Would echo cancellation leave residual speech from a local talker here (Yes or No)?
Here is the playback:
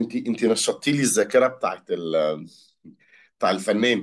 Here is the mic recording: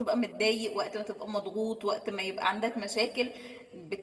Yes